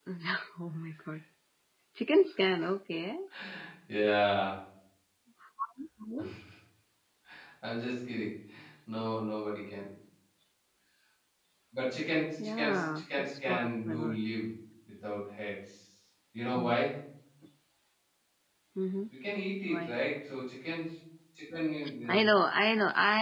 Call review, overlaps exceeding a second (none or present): present